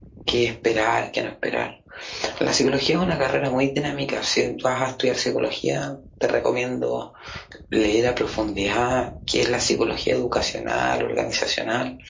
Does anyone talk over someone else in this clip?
No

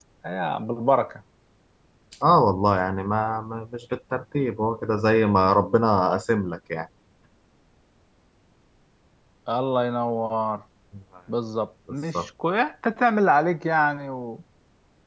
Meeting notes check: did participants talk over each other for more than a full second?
No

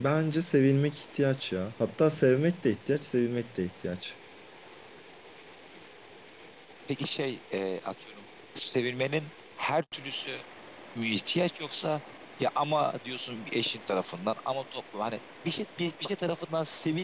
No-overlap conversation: Yes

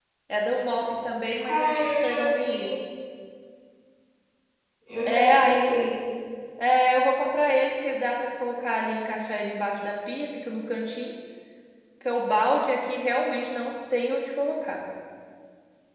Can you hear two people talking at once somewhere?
Yes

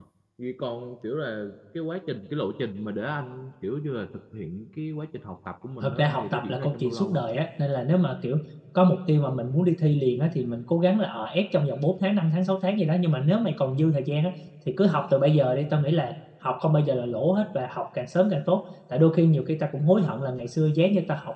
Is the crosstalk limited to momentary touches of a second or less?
No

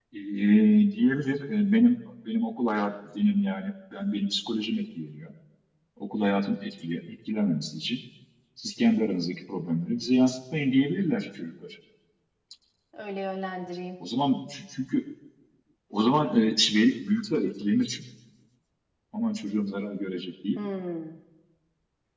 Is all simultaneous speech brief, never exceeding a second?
Yes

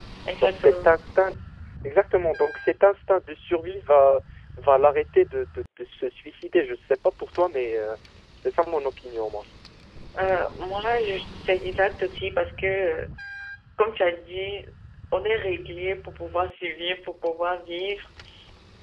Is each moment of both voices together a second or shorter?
Yes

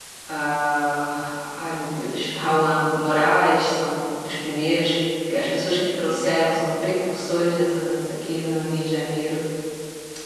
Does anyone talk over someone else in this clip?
No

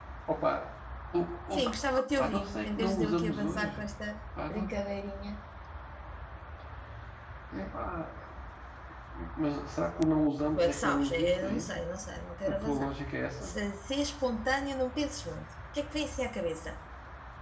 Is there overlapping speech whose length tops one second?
Yes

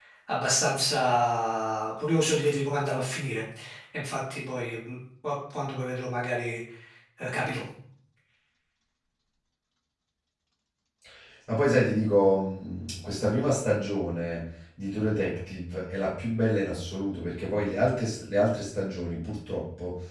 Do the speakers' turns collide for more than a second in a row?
No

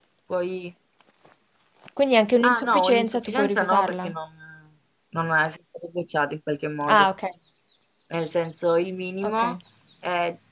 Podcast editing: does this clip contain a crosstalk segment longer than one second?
Yes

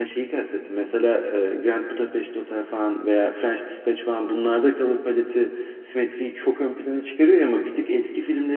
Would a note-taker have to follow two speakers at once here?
No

